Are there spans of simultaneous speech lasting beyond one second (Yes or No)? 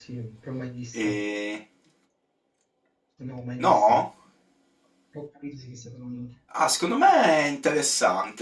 No